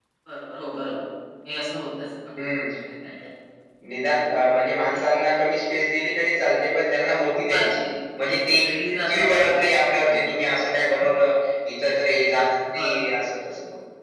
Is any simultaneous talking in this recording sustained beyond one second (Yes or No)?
Yes